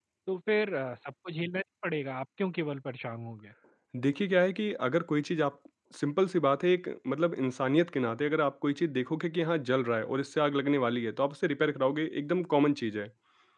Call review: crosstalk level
none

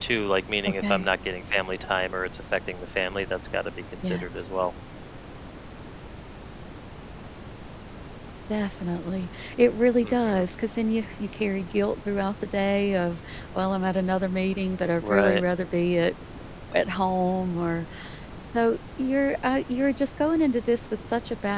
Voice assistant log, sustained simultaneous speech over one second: none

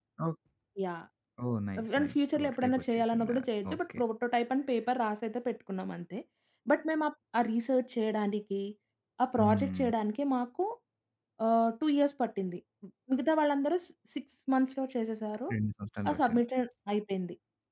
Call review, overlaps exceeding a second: present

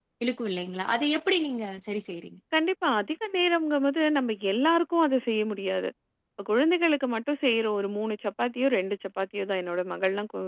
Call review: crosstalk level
none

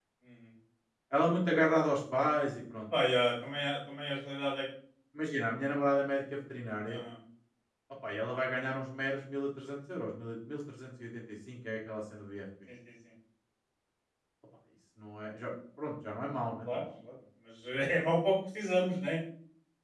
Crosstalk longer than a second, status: none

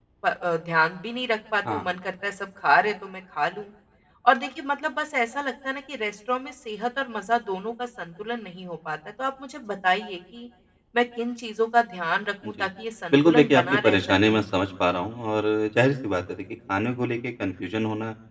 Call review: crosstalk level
present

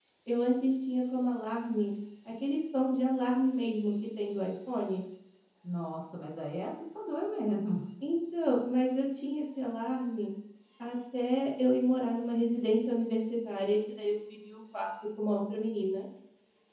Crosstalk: none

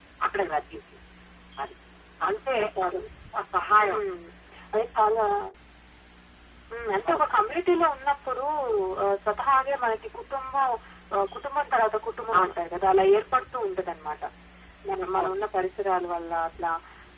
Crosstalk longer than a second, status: none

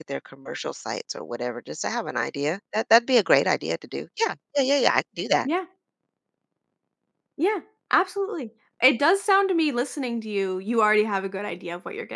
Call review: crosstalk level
none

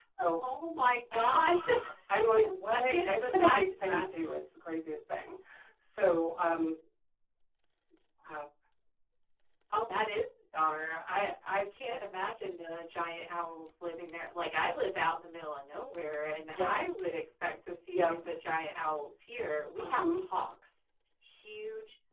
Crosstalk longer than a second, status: present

